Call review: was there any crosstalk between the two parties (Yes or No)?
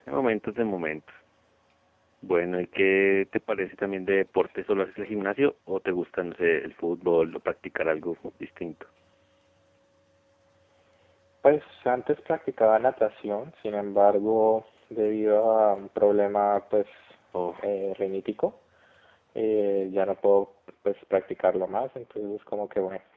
No